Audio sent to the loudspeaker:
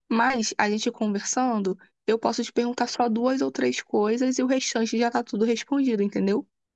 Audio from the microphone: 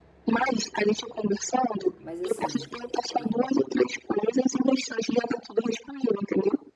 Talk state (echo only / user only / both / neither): both